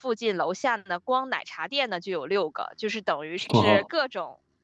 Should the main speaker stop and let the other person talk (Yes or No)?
No